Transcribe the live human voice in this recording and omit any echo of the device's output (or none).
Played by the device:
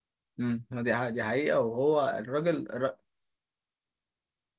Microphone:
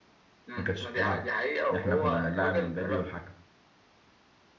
ما كانتش بتلعب احنا كنا بنلعب مبابي والحكم